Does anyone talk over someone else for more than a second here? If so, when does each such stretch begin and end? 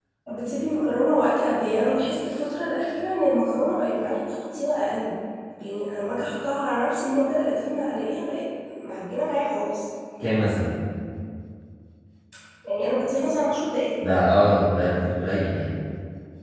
none

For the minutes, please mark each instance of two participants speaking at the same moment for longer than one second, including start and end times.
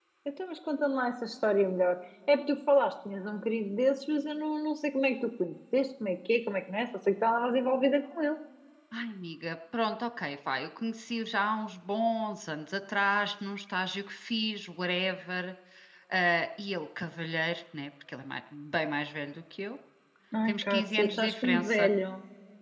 20.5-21.9

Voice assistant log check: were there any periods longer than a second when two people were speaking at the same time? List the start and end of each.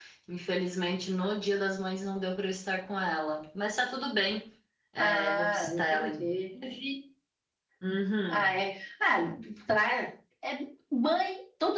5.0-6.4

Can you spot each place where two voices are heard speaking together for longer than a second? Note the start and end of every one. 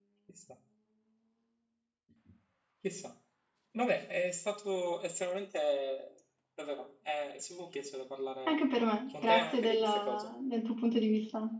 9.1-10.3

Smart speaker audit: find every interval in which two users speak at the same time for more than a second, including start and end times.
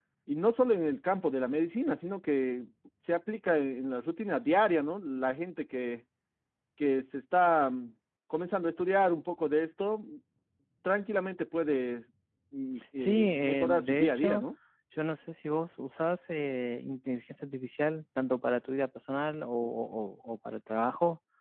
13.0-14.4

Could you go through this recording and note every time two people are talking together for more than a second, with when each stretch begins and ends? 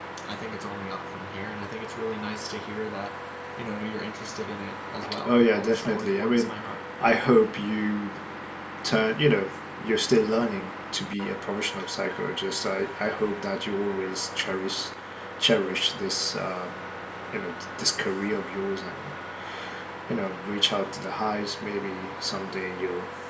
5.3-6.5

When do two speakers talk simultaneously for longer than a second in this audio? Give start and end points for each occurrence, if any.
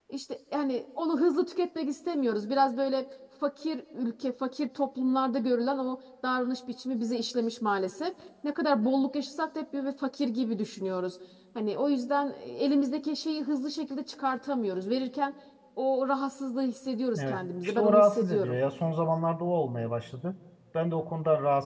17.2-18.6

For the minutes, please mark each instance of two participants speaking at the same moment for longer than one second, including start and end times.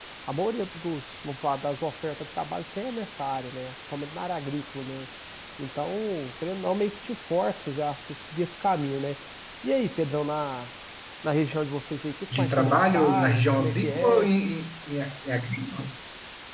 12.3-14.3

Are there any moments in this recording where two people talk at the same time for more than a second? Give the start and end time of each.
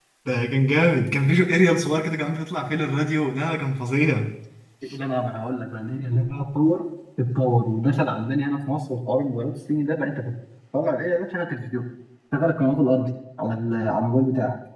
none

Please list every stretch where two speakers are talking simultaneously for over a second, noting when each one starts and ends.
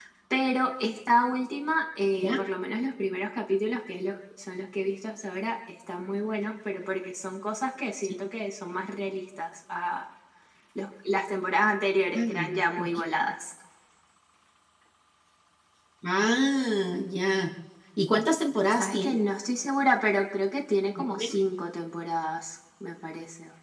none

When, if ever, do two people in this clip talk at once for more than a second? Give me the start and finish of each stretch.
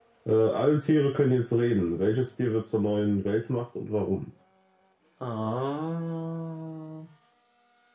none

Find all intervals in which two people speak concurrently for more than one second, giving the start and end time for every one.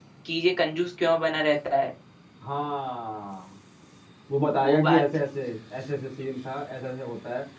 none

